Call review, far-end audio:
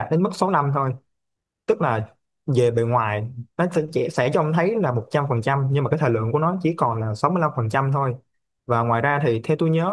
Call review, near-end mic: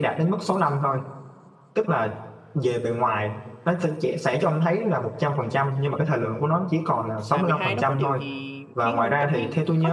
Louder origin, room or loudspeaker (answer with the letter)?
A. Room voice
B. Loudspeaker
B